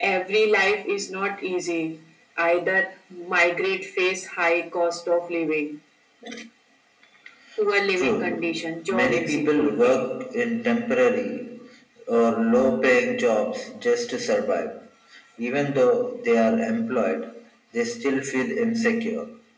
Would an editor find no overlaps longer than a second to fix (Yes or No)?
No